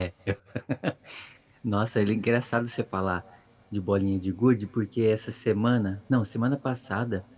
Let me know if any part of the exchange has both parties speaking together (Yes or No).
No